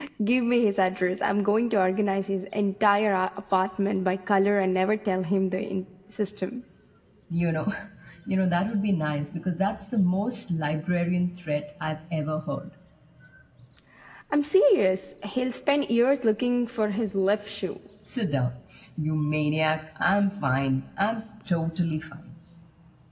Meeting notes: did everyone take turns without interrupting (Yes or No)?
Yes